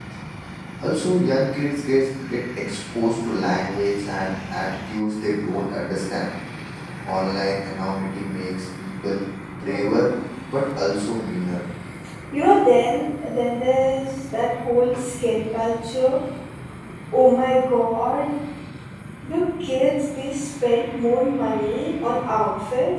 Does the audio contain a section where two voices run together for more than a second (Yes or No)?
No